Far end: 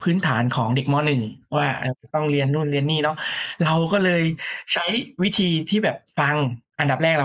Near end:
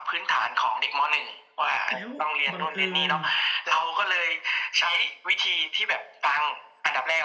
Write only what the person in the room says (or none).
แล้วบังเอิญ